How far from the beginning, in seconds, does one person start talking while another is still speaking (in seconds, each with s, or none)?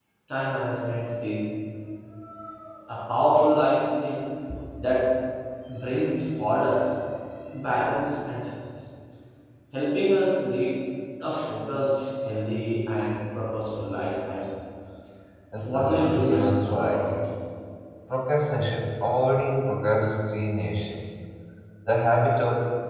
15.7 s